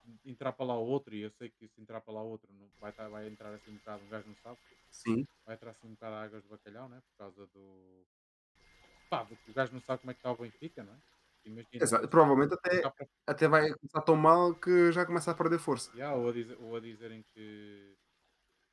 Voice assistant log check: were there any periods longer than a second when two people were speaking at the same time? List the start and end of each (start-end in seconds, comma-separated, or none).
none